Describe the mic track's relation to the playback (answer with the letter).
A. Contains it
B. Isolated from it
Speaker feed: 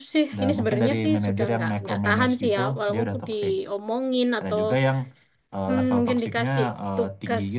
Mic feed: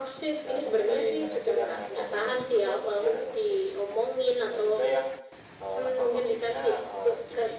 A